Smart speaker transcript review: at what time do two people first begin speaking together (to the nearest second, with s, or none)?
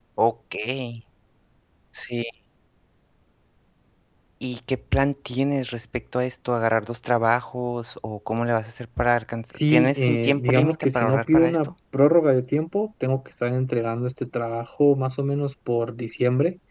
10 s